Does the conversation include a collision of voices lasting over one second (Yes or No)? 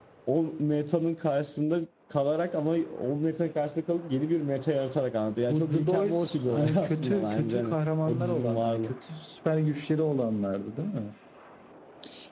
Yes